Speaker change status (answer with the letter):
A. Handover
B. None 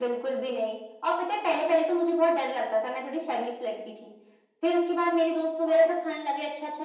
B